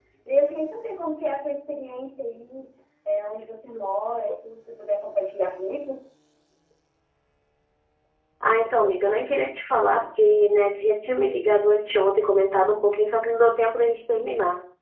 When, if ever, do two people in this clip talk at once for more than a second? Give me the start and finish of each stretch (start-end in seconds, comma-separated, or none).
none